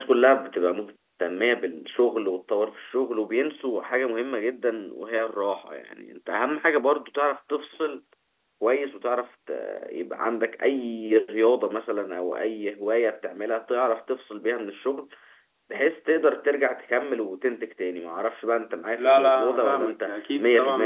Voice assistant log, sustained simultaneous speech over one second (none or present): present